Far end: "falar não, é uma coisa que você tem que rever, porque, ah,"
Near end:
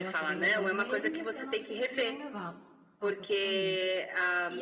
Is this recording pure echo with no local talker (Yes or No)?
No